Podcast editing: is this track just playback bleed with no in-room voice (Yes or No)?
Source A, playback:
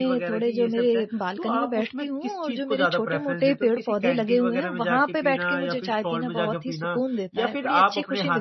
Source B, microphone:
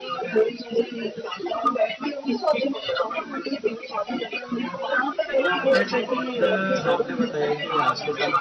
No